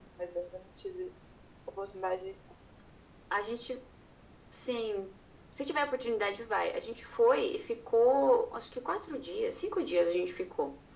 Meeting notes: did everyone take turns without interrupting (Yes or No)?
Yes